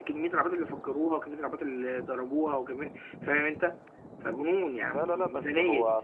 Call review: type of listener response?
taking over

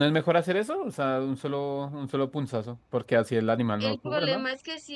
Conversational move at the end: taking over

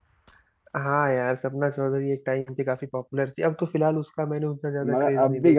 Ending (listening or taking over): taking over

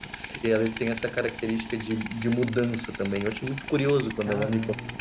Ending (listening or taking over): taking over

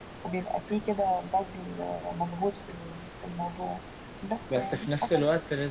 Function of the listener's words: taking over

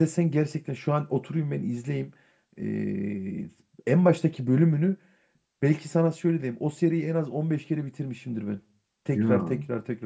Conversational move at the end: listening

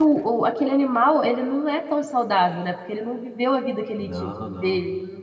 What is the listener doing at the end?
listening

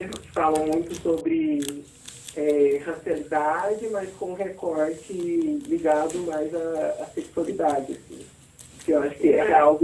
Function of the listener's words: listening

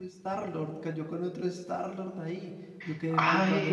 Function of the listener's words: taking over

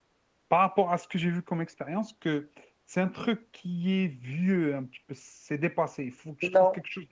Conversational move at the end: listening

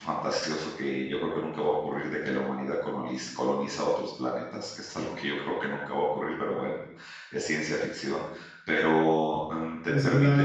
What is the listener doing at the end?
taking over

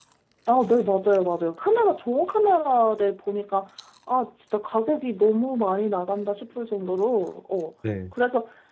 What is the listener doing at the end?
listening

